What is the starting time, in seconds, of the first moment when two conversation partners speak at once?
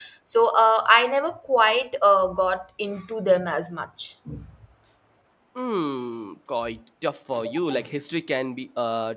none

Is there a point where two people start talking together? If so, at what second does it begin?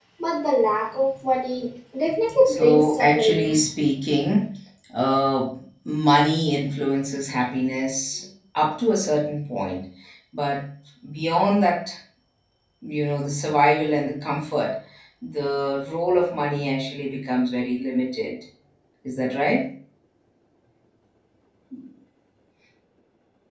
2.5 s

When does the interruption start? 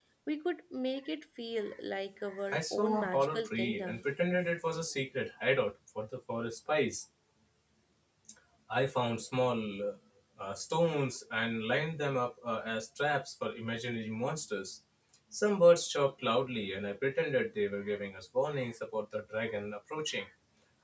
2.5 s

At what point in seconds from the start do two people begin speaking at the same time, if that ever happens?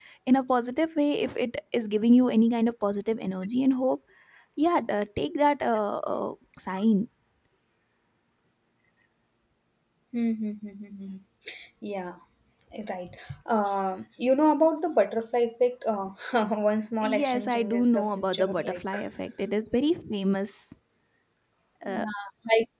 17.2 s

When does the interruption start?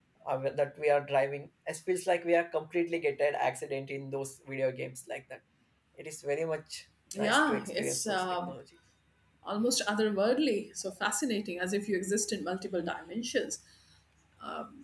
7.1 s

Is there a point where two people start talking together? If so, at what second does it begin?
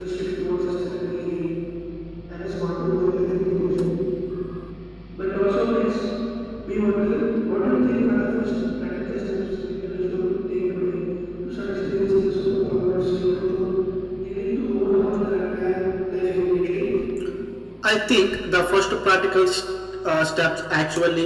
none

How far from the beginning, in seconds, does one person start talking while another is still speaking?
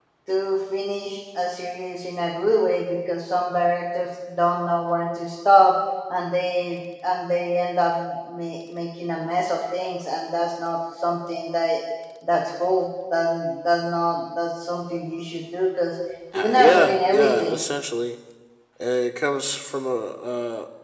16.3 s

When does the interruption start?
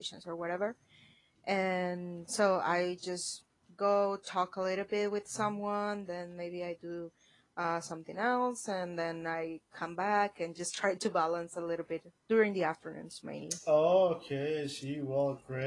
none

